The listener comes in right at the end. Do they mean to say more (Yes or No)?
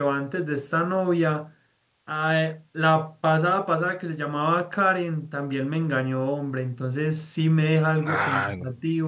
No